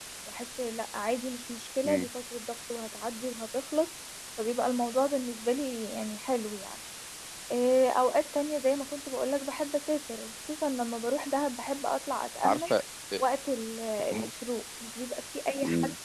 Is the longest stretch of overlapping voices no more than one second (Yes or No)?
Yes